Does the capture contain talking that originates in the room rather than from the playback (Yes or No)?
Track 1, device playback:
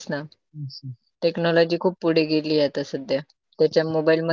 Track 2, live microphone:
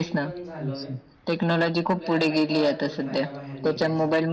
Yes